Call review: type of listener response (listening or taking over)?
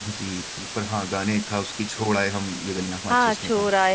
taking over